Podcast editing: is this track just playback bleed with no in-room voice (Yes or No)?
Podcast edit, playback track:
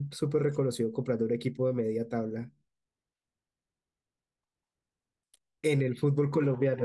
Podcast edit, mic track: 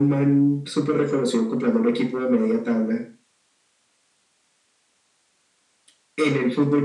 Yes